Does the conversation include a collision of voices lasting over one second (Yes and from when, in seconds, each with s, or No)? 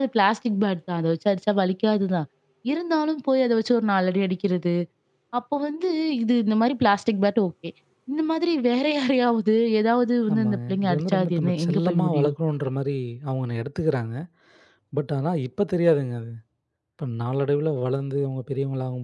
Yes, from 10.3 s